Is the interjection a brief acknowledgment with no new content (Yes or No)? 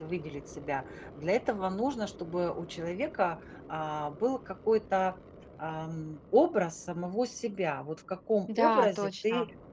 Yes